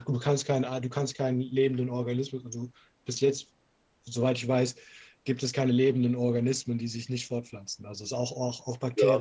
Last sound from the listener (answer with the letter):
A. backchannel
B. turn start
B